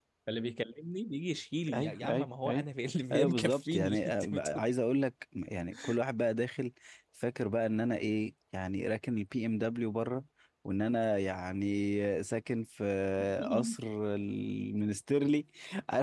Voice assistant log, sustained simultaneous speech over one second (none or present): present